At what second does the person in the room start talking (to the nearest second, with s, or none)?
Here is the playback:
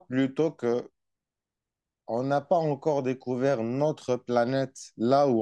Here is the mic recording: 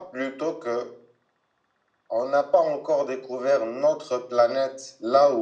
none